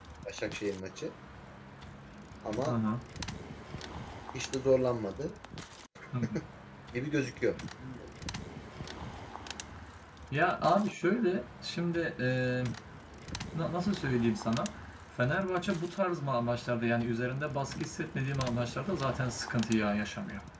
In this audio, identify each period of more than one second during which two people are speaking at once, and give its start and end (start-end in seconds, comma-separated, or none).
none